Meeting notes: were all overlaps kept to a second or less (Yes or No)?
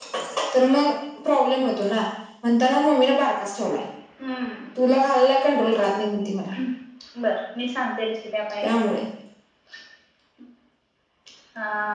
Yes